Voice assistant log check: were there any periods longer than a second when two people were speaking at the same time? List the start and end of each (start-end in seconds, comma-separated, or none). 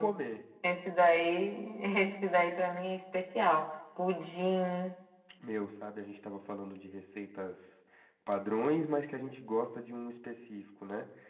none